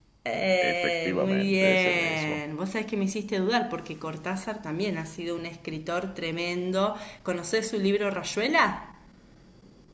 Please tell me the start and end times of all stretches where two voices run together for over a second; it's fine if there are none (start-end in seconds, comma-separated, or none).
0.6-2.4